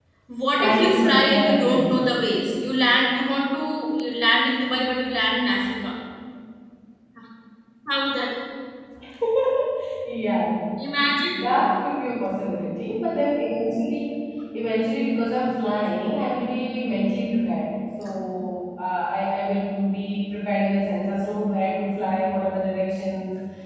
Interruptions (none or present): present